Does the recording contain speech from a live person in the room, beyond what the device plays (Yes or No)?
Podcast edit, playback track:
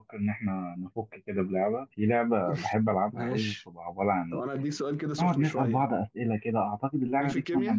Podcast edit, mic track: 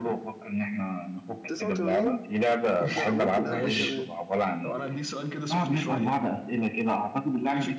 Yes